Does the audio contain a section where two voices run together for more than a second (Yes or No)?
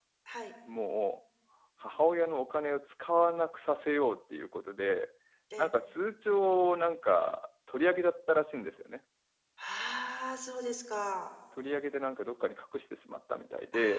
No